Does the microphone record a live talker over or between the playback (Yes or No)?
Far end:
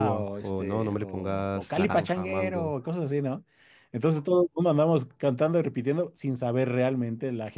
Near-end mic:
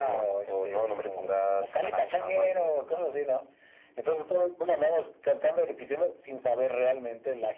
No